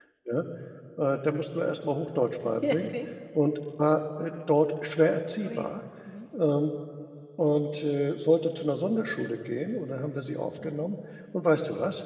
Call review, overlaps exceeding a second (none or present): none